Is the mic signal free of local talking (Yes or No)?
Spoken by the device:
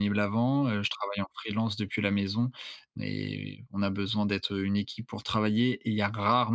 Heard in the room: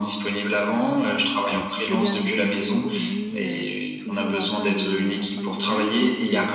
No